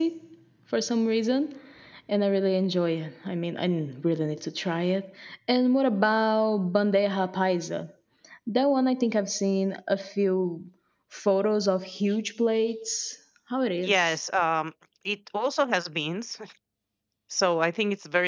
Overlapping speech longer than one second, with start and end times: none

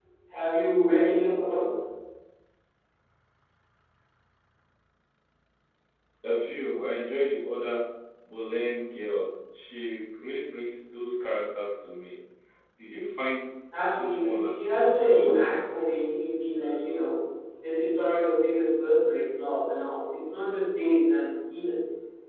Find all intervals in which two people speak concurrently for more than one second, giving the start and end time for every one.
14.0-15.5

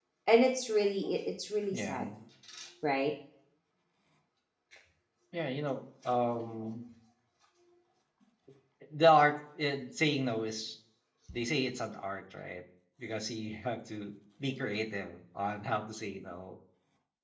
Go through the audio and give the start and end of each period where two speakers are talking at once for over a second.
none

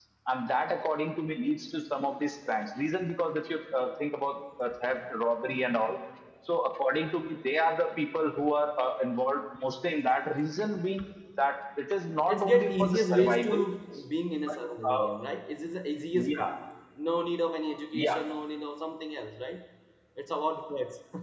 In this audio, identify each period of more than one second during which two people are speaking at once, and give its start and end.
12.3-13.6

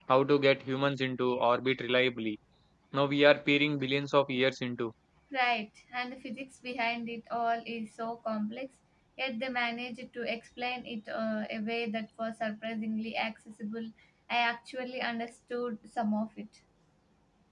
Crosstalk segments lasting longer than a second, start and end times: none

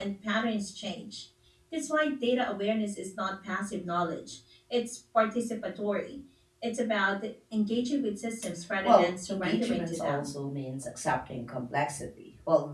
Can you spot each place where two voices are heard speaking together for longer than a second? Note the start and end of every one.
8.8-10.3

